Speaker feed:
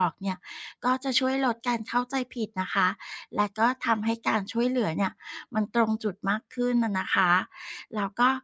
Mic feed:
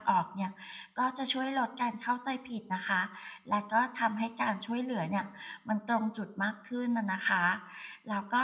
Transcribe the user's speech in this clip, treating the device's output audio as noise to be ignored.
none

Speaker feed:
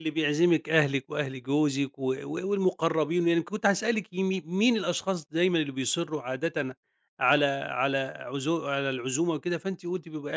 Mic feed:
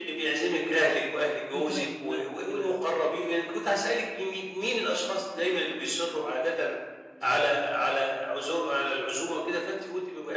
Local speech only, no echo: وتريّحي دماغِك وكده،

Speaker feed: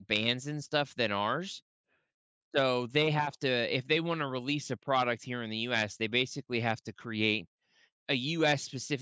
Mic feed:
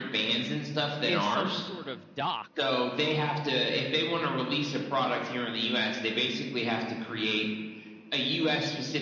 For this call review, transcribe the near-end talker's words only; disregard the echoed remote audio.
is some sort of dock

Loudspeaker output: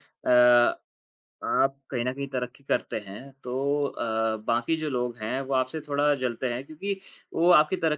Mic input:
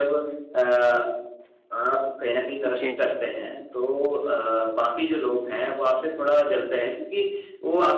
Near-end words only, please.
जी, जी।

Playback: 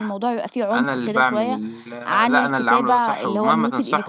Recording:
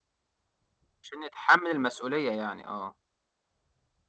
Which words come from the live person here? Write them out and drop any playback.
عشان يتحمل المسؤولية يعني، آه،

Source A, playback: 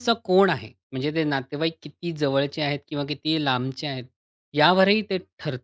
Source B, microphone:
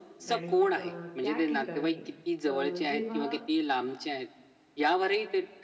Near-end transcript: आणि अ, त्या ठिकाणी अ, जेव्हा

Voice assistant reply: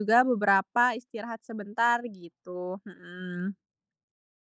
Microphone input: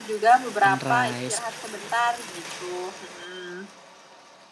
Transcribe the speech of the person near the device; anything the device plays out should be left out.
sunrise.

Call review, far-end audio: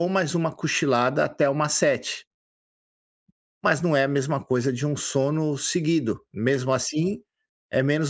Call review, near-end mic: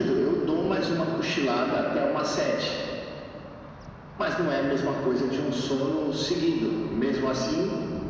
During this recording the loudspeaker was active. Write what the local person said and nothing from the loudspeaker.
none

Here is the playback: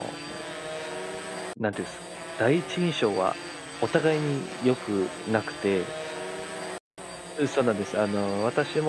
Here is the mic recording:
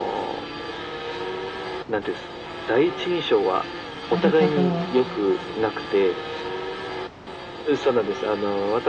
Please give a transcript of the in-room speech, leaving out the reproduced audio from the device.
なるほど。

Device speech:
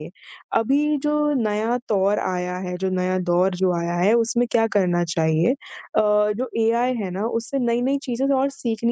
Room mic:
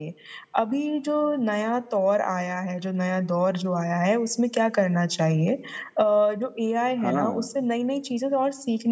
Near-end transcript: हाँ,

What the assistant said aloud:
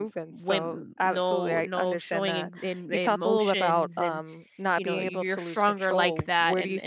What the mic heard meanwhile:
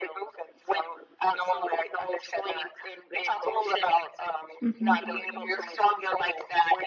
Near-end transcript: hmm

